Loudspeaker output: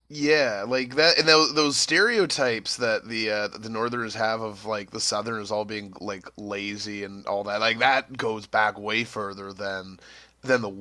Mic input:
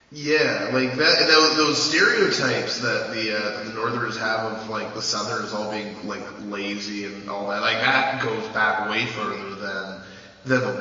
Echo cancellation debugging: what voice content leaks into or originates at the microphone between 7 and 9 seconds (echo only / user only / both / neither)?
echo only